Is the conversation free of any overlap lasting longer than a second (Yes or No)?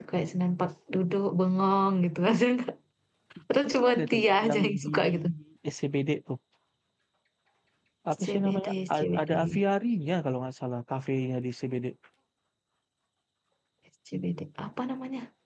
No